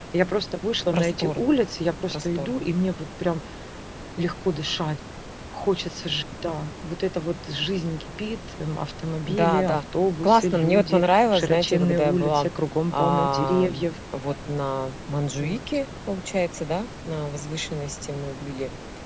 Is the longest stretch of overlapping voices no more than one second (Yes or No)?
No